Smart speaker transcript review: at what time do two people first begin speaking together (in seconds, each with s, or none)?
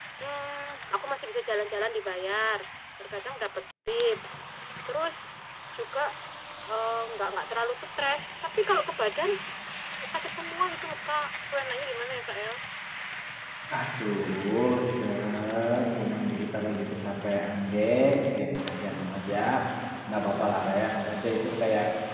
none